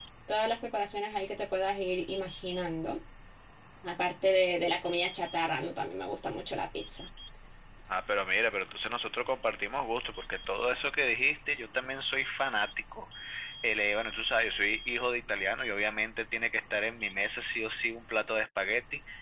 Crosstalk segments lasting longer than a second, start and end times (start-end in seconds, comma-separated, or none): none